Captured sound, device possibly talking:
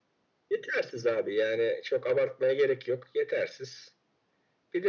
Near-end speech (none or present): none